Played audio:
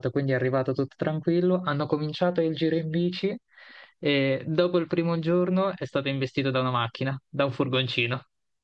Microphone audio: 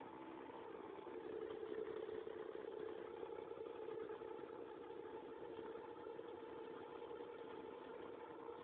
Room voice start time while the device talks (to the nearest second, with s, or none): none